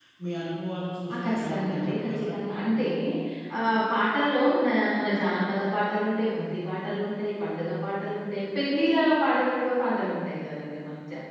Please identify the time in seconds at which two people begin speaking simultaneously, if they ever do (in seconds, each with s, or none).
1.1 s